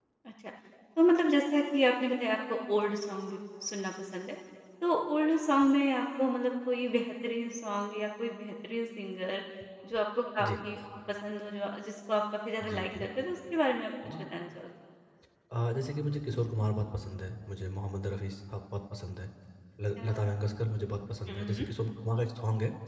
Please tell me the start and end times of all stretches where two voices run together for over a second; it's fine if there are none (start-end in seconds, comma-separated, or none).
none